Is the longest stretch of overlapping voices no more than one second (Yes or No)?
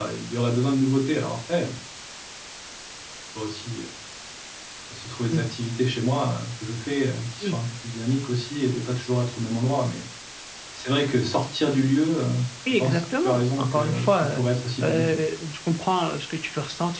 No